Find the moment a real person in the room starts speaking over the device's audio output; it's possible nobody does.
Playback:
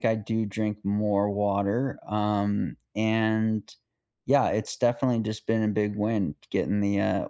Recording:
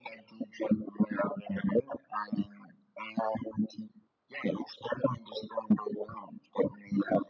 none

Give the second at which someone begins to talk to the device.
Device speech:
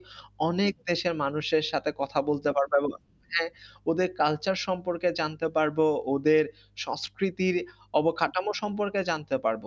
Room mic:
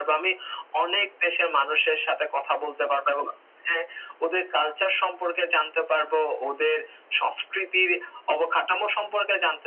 none

